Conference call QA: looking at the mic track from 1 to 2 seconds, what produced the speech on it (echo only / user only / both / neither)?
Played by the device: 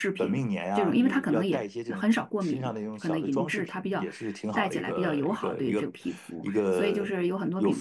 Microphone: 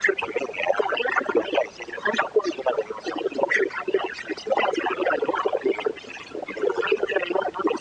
echo only